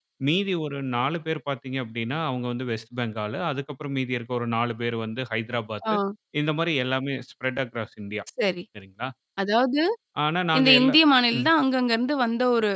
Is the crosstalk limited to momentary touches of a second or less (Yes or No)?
Yes